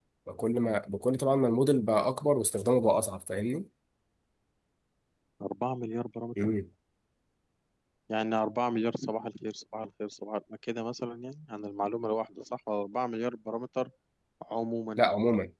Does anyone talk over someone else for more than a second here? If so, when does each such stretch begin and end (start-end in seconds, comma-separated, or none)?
none